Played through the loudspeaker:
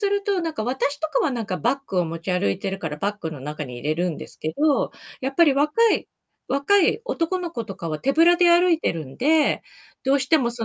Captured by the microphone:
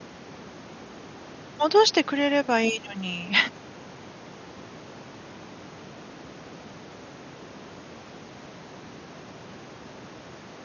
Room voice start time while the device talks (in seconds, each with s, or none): 1.6 s